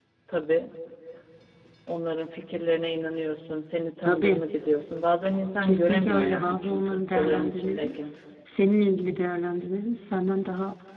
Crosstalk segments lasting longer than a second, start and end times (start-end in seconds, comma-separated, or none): 5.6-7.9